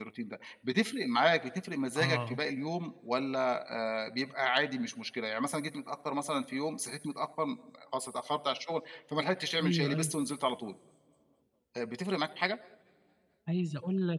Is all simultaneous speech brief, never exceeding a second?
Yes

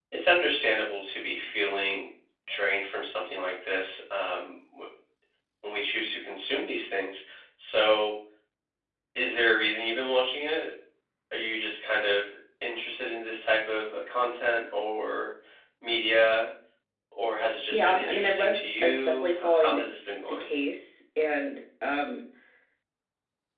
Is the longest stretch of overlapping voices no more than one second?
No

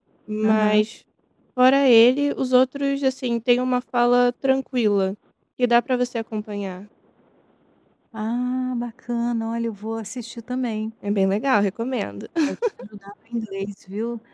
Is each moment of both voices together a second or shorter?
Yes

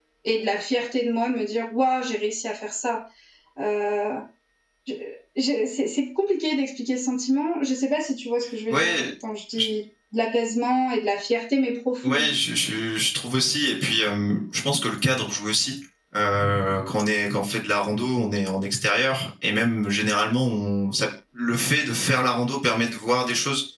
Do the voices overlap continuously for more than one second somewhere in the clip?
No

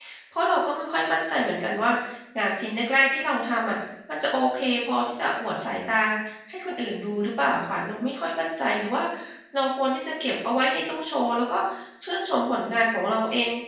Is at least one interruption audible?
No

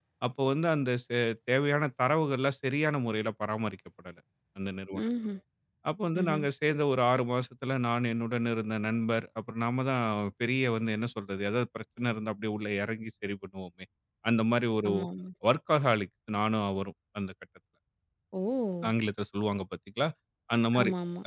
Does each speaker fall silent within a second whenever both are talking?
Yes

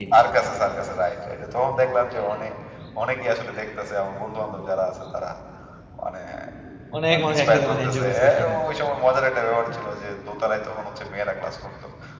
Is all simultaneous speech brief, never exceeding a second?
No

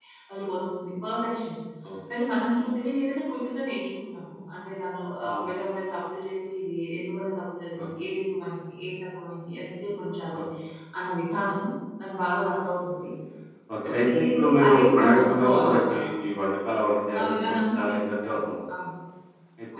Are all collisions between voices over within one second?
No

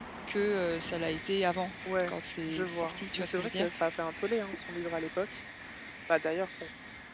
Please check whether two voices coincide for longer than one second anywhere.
Yes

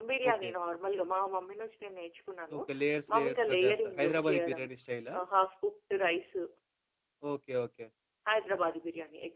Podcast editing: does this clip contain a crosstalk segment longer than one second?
Yes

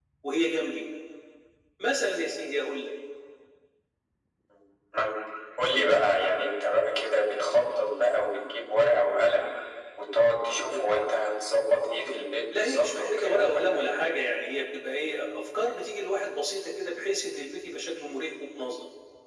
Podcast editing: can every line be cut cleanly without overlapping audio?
No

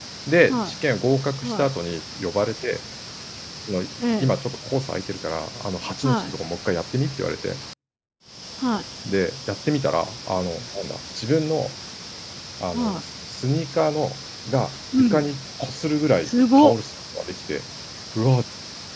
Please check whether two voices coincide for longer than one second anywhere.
No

